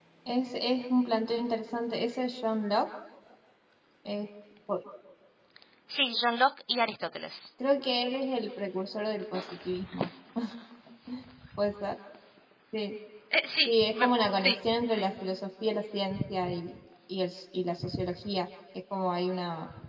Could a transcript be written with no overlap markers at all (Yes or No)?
No